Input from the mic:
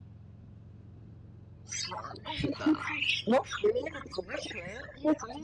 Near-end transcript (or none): 是的，